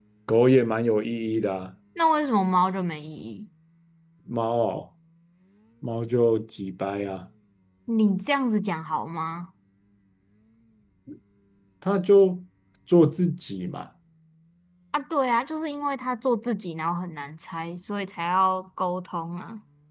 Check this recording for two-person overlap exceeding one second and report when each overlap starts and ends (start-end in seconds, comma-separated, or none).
none